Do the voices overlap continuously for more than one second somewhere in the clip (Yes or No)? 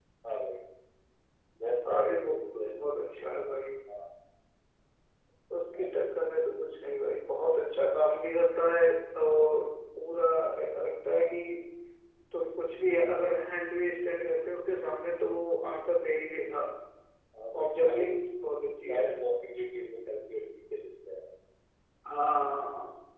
Yes